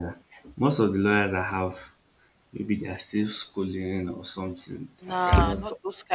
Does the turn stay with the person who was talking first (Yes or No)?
No